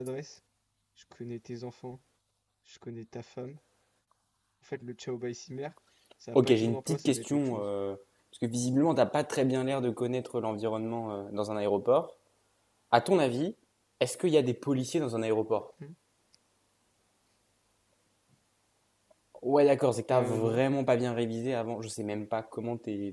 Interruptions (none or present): present